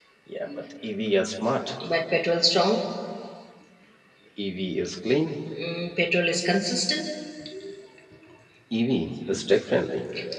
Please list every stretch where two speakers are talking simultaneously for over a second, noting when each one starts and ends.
none

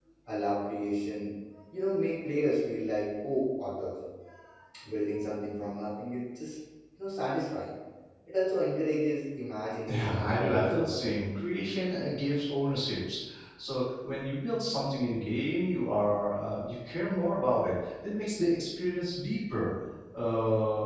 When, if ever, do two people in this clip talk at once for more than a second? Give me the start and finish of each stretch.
9.9-11.1

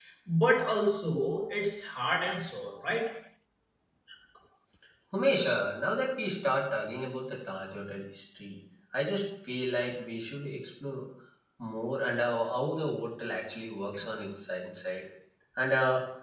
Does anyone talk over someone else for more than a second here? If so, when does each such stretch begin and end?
none

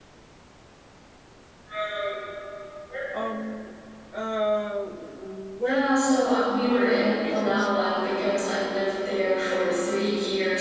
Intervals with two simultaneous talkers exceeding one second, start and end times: 5.6-7.9

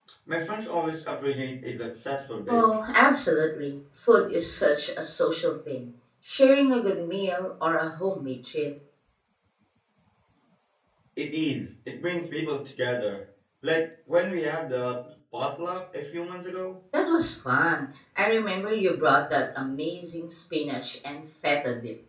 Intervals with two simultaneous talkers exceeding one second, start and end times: none

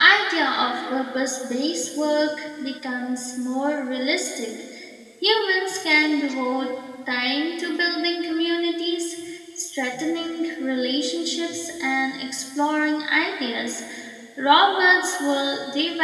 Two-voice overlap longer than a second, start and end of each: none

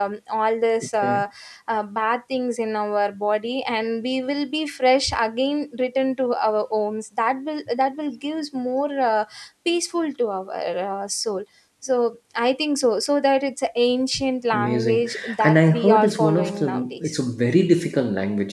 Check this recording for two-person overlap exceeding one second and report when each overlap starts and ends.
14.5-17.2

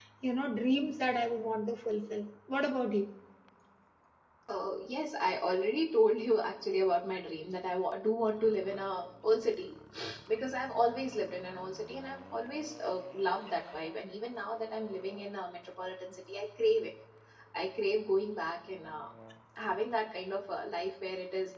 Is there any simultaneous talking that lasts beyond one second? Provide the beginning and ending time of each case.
none

